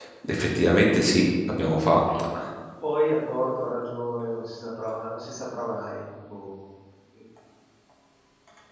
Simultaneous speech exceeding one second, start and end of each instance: none

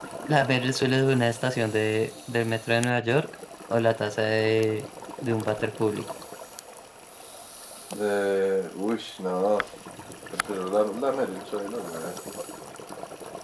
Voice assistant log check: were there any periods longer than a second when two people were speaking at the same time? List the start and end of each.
none

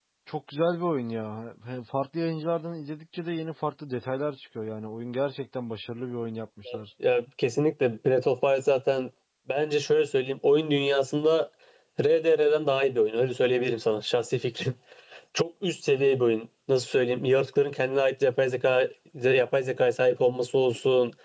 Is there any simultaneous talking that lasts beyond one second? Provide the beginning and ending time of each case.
none

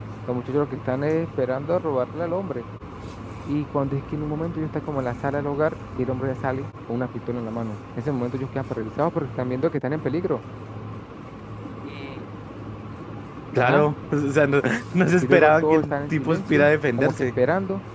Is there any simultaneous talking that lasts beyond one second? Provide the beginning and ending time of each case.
15.2-17.3

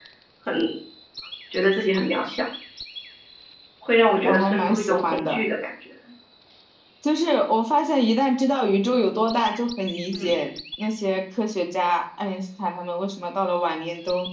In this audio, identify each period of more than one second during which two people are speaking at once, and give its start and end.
4.2-5.5

